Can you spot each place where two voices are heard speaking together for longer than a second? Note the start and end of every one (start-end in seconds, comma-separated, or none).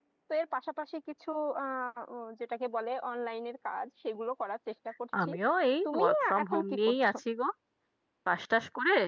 5.8-7.1